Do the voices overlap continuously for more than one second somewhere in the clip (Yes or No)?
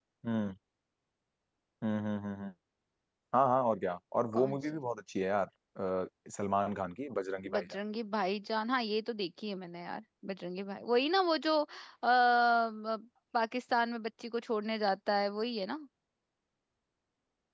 No